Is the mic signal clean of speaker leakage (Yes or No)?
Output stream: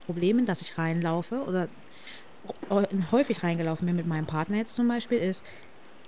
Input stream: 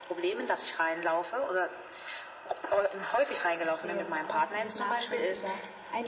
No